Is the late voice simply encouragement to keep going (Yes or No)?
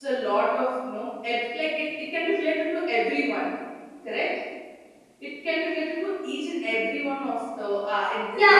No